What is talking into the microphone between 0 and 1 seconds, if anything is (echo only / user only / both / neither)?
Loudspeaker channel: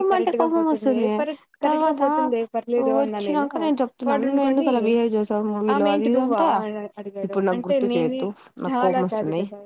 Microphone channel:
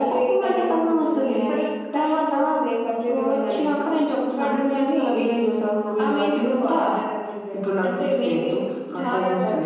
echo only